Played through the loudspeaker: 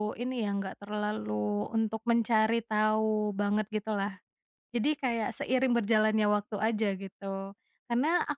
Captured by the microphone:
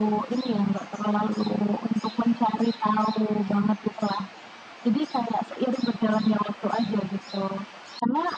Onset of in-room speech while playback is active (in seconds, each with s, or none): none